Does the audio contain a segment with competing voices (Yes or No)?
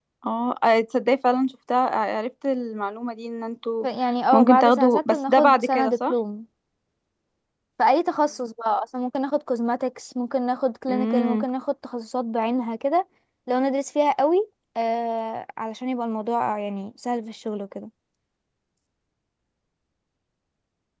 Yes